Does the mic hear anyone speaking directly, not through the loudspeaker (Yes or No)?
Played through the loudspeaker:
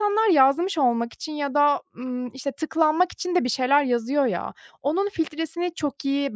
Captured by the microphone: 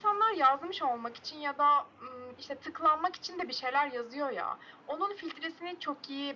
No